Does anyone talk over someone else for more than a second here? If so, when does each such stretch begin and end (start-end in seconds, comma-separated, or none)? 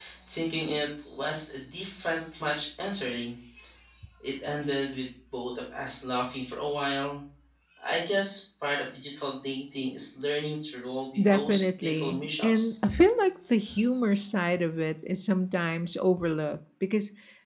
11.2-12.7